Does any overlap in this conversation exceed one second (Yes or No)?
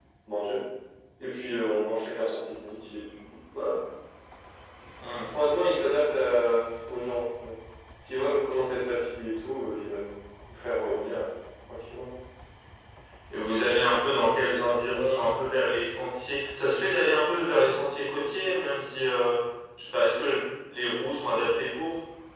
No